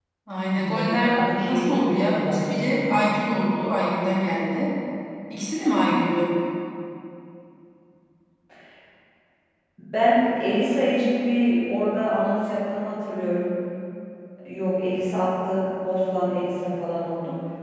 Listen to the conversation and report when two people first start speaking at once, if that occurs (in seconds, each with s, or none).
0.5 s